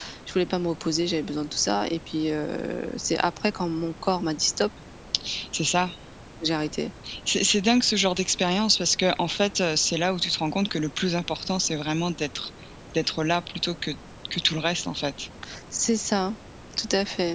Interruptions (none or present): none